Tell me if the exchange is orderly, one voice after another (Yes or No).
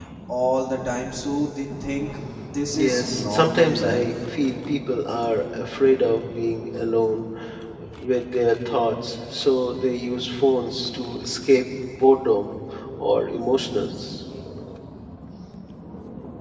No